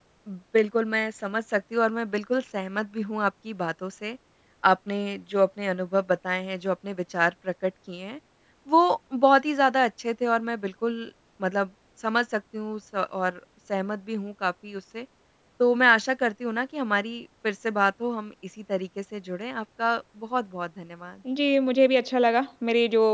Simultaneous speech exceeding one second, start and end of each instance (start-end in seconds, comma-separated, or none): none